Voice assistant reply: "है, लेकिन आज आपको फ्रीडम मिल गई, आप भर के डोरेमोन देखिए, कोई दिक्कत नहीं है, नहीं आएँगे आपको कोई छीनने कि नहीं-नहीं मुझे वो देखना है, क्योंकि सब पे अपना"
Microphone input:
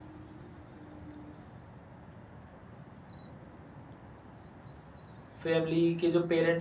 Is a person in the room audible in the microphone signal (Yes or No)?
Yes